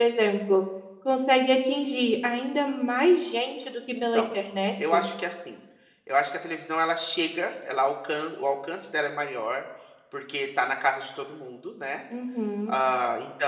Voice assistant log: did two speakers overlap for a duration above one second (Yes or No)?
No